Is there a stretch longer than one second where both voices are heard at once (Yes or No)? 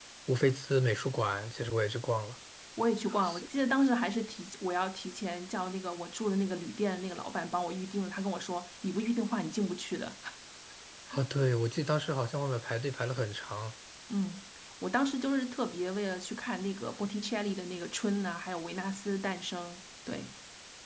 No